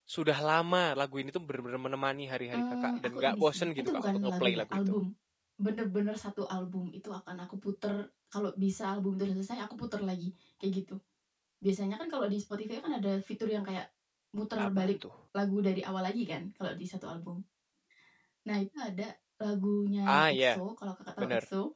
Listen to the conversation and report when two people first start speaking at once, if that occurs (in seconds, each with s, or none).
2.5 s